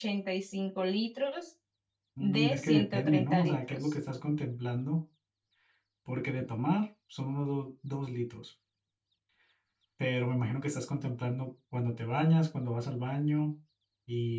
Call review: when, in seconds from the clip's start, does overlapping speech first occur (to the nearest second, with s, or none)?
2 s